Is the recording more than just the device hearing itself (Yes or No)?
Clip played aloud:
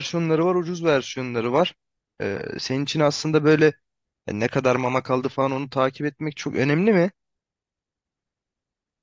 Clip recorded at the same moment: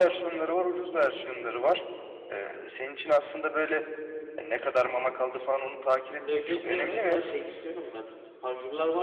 Yes